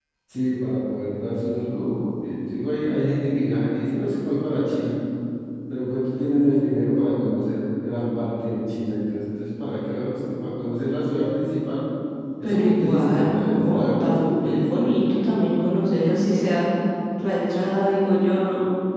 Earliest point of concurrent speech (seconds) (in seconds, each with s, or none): 12.4 s